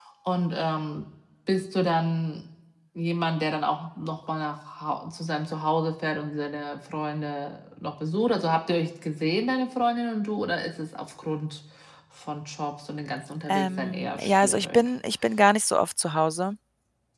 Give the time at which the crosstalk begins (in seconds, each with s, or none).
13.5 s